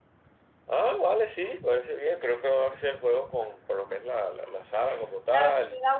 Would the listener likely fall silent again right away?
No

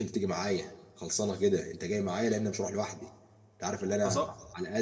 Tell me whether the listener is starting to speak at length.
No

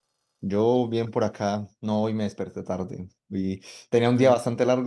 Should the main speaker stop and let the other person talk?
No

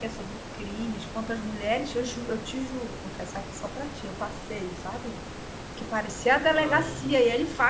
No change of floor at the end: Yes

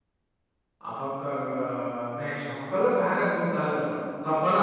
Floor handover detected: No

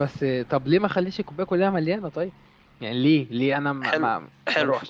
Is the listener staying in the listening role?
No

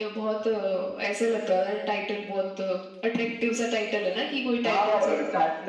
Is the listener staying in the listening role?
No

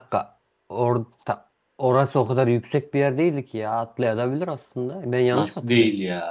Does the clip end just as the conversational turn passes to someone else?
Yes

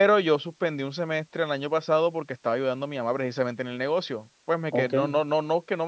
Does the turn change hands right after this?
No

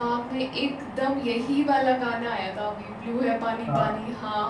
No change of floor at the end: Yes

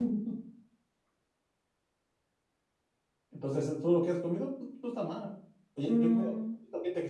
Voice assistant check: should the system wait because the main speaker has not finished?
Yes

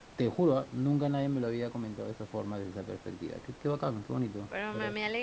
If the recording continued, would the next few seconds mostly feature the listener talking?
Yes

